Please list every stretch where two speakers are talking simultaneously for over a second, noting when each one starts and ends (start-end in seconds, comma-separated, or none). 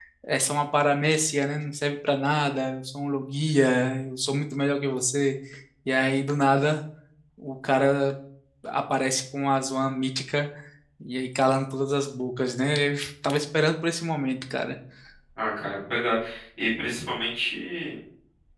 none